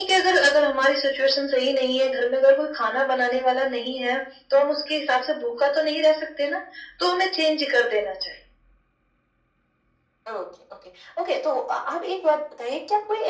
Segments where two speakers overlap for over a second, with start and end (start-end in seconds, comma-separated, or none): none